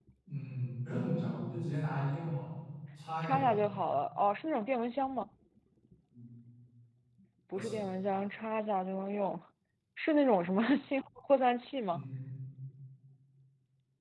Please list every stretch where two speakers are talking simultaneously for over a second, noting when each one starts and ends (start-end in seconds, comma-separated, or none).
none